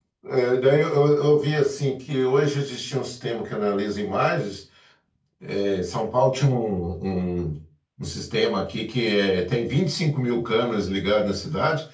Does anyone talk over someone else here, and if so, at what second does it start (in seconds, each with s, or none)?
none